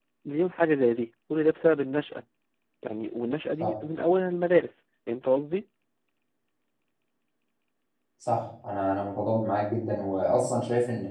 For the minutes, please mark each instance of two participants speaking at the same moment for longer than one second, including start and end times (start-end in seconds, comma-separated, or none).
none